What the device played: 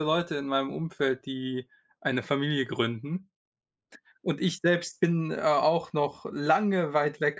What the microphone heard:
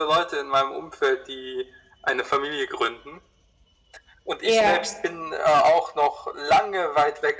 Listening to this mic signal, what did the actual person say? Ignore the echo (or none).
Ja.